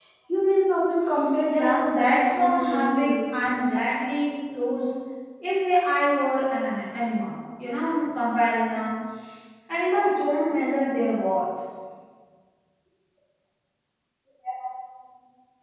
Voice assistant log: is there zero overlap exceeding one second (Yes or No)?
No